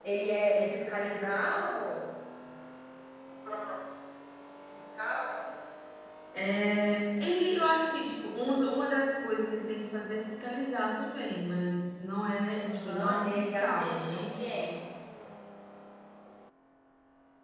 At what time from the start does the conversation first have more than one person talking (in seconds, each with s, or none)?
12.6 s